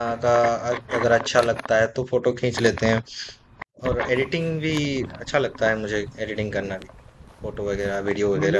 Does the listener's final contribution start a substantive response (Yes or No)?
Yes